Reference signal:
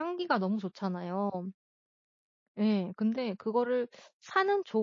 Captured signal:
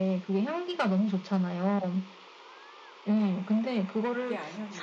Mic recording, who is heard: both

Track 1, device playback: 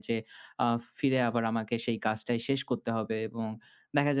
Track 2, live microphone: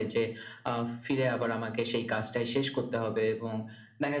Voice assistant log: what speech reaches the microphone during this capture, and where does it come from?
echo only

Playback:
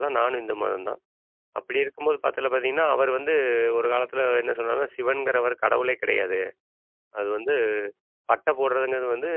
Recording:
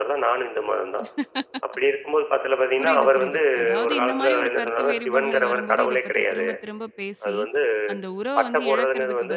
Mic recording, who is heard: both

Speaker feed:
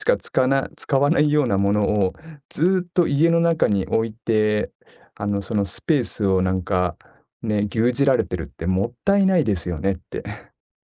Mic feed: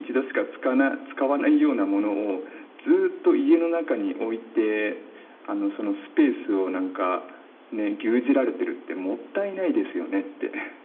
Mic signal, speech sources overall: echo only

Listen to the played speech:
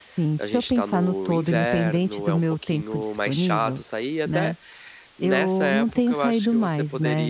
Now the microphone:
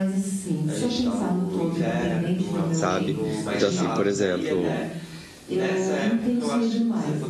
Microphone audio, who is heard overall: both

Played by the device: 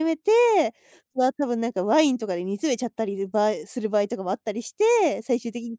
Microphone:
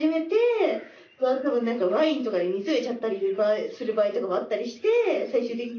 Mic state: echo only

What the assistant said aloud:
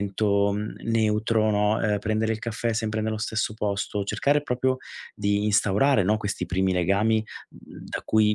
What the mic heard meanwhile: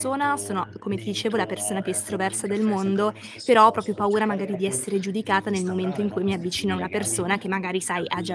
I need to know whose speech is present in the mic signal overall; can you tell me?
both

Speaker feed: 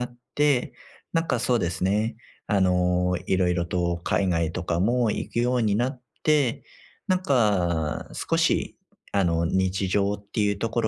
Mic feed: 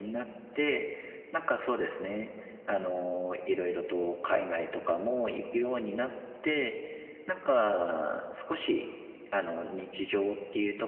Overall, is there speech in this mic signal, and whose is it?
echo only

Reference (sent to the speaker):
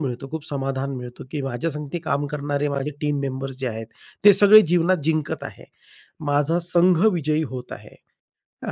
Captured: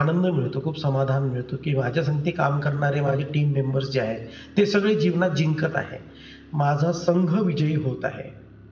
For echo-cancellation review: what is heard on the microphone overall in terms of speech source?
echo only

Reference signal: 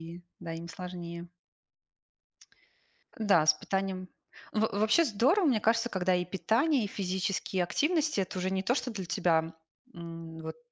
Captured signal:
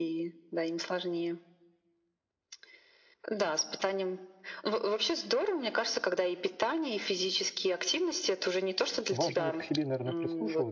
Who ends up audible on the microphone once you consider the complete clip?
both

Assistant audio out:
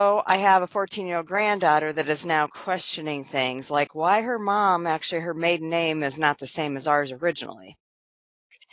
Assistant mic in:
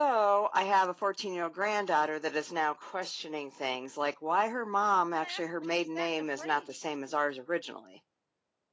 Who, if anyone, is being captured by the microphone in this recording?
both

